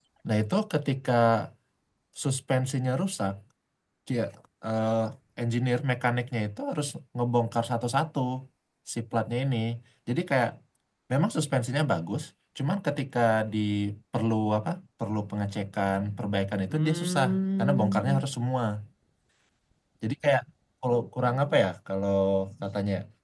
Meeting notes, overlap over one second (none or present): present